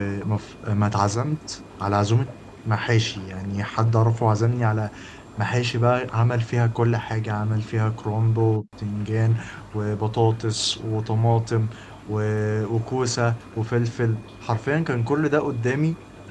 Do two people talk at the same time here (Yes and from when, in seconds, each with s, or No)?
No